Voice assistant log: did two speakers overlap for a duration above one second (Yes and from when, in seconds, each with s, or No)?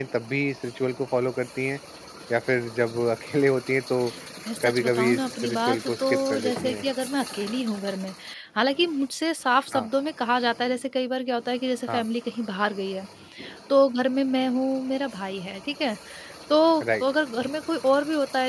Yes, from 4.6 s